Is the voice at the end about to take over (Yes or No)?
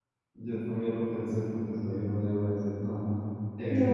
Yes